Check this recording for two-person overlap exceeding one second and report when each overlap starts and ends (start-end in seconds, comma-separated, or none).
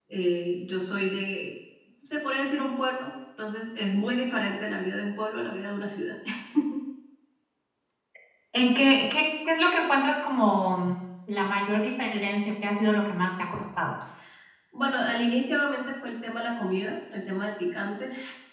none